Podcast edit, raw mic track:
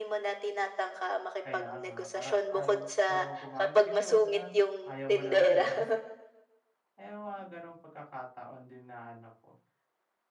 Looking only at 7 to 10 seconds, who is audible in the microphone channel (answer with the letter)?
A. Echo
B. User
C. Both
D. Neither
B